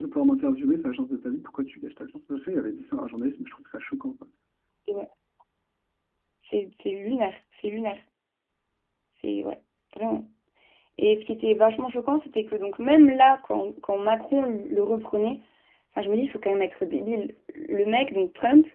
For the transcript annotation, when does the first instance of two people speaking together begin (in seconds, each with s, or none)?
none